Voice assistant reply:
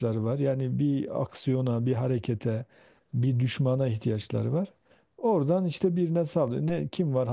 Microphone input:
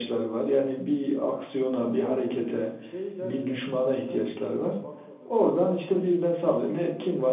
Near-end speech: present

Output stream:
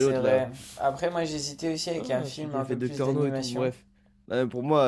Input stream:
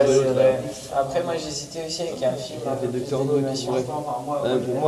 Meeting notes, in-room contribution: present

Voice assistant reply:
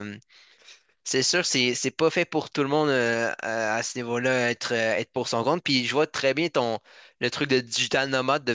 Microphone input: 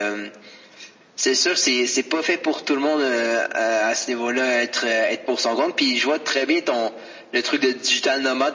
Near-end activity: none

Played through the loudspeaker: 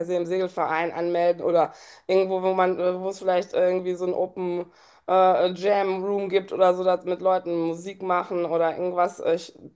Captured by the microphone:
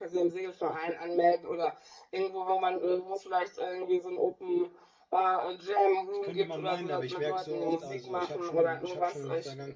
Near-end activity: present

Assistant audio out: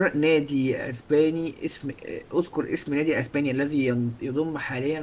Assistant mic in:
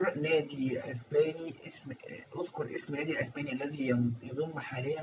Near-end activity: none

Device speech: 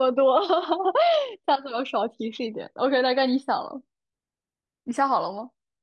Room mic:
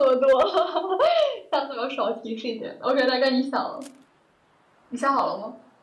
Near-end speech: none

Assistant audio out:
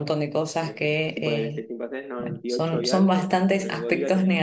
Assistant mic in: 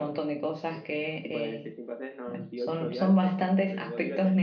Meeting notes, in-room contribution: none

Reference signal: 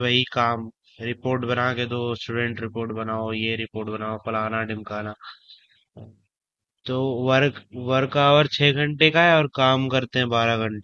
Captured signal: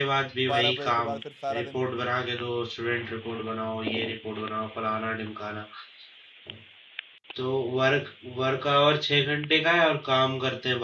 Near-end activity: present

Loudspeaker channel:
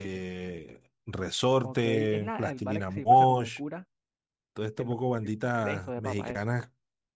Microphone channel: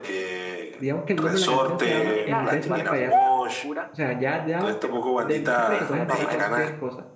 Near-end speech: present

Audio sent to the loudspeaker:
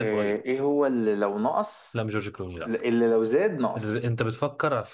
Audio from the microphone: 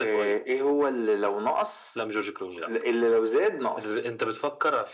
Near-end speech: none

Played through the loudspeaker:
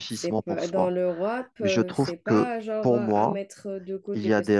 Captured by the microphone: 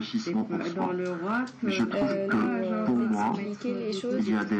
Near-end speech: present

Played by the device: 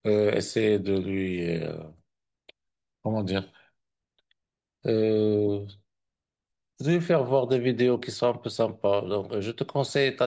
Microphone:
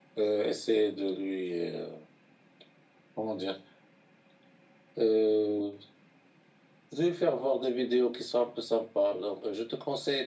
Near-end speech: none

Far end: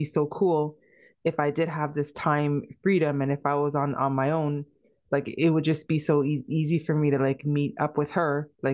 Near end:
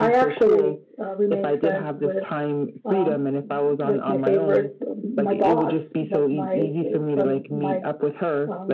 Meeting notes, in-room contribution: present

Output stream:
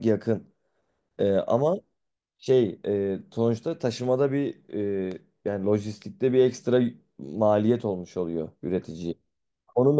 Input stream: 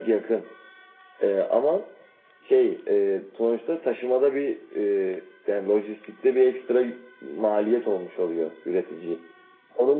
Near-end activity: none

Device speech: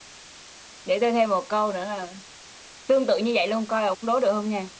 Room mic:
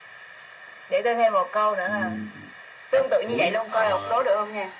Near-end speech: present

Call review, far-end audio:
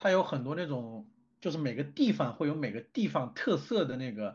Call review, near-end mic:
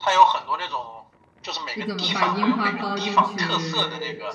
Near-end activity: present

